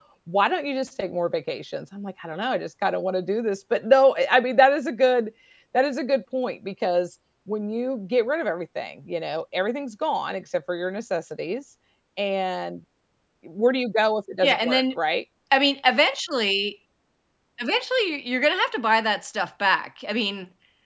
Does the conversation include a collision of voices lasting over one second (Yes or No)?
No